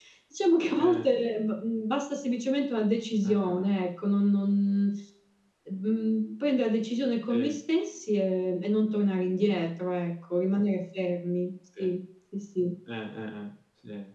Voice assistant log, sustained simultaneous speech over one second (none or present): none